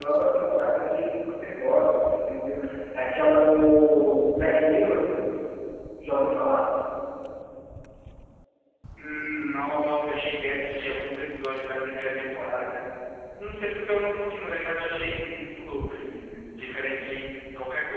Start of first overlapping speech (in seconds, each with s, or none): none